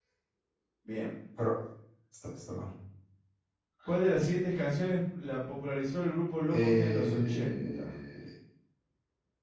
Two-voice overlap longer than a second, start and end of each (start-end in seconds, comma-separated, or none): 6.5-7.9